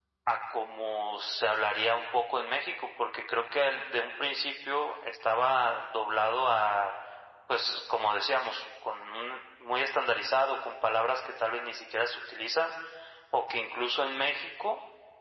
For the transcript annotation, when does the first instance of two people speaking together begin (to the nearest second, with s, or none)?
none